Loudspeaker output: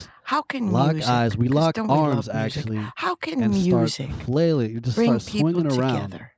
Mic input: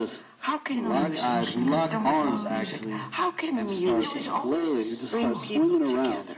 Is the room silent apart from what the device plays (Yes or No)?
No